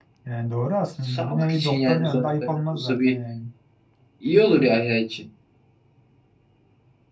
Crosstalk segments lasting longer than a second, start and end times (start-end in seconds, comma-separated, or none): 1.0-3.2